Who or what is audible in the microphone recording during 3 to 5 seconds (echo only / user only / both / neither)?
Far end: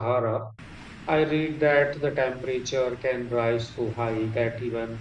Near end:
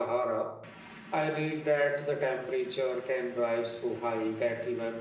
echo only